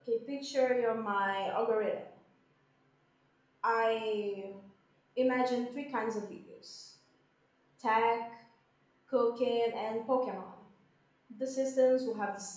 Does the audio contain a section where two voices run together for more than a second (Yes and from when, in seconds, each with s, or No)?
No